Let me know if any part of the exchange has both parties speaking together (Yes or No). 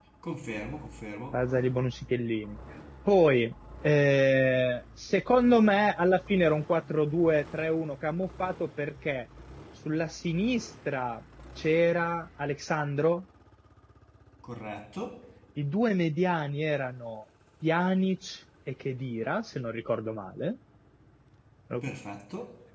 No